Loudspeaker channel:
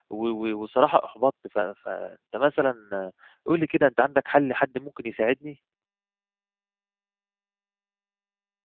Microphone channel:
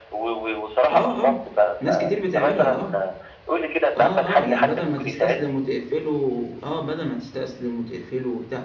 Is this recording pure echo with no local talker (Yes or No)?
No